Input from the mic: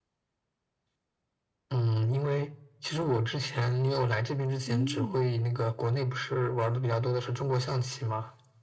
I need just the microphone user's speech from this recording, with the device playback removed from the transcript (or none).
嗯，